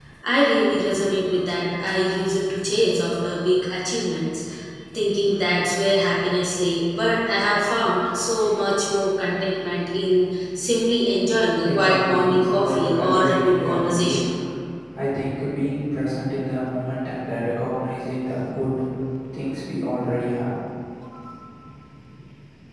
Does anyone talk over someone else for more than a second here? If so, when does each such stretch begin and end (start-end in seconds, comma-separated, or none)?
11.6-14.2